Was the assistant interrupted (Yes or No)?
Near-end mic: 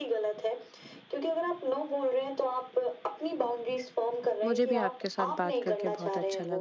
Yes